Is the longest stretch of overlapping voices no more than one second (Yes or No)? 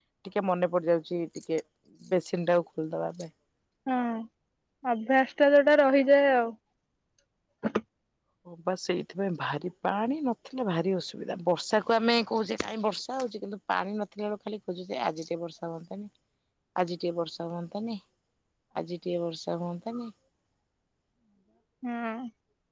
Yes